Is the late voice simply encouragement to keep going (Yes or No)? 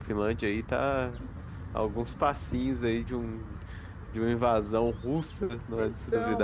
No